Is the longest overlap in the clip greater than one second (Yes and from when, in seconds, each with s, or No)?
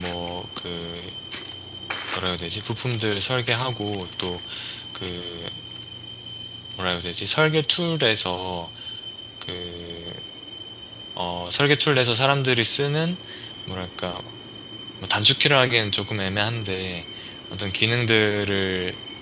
No